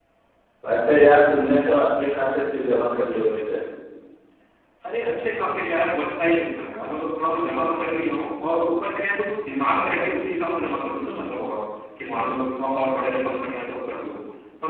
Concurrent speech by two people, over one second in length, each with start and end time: none

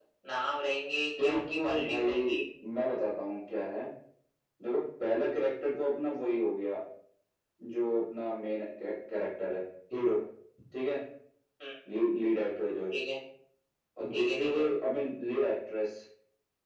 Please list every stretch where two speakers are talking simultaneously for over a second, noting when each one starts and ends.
1.2-2.4

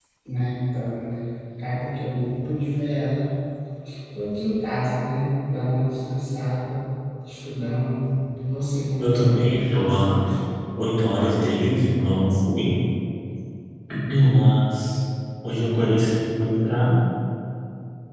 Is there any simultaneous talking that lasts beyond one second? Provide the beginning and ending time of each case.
9.0-10.2

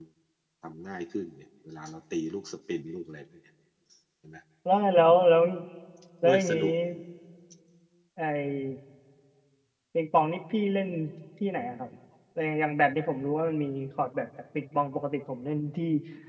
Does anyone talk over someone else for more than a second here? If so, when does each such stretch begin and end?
none

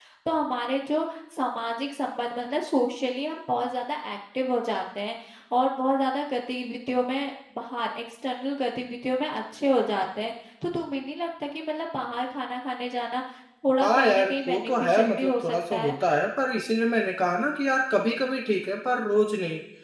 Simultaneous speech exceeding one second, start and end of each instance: 13.8-16.0

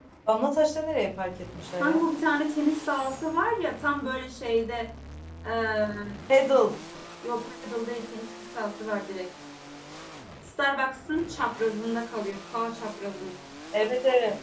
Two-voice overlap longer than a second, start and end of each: none

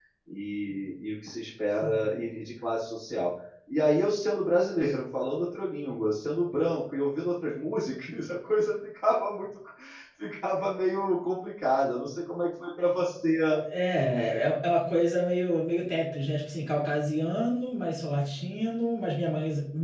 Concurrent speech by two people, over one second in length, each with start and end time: none

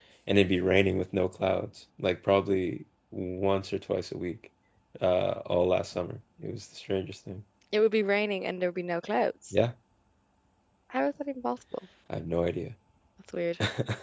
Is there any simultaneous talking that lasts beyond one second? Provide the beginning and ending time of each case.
none

